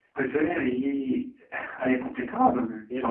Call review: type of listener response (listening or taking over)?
taking over